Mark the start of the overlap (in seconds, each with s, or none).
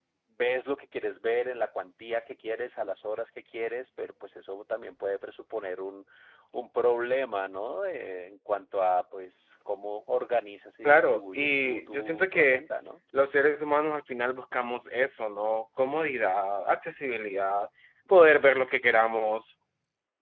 10.8 s